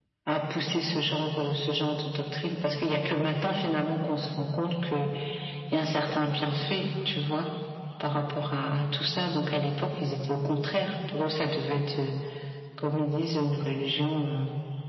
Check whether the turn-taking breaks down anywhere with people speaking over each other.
No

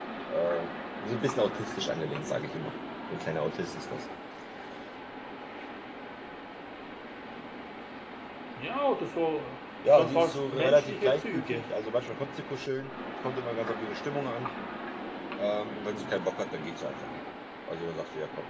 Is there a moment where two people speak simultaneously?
Yes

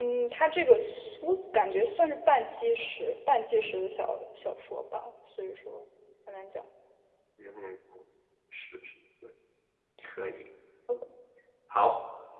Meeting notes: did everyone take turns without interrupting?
Yes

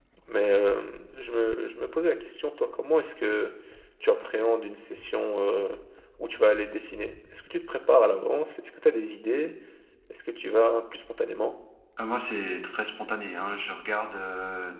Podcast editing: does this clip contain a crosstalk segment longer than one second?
No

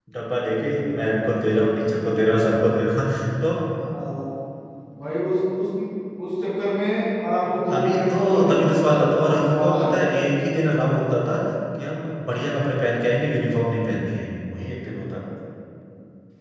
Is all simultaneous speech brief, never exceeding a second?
No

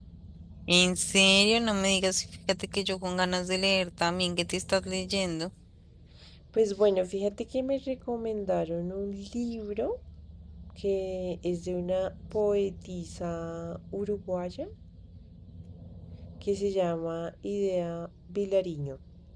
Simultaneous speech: No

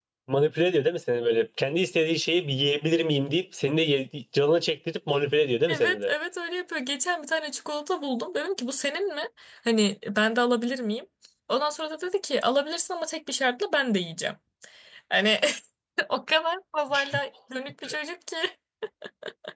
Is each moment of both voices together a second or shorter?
Yes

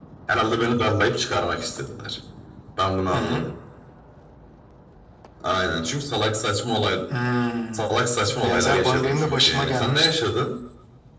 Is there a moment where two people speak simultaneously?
Yes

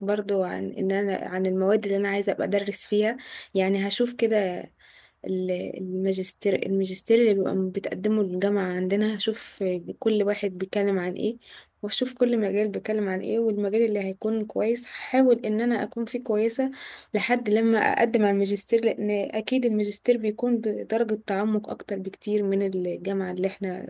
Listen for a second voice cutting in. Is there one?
No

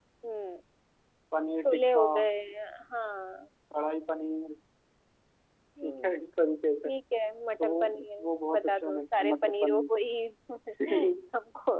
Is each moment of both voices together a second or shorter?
No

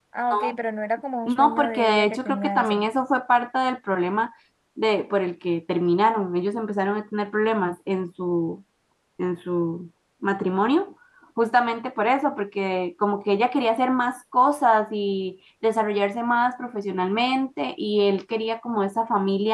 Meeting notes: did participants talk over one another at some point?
Yes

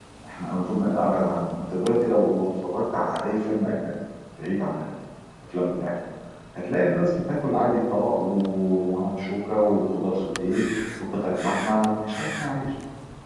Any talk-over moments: No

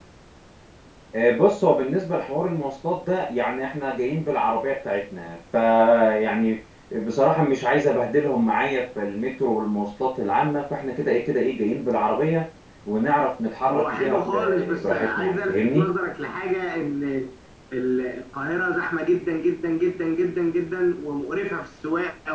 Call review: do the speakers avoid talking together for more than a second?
No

